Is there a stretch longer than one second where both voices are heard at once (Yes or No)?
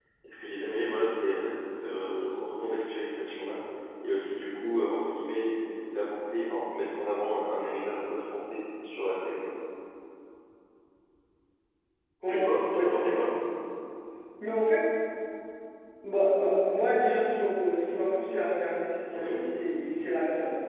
No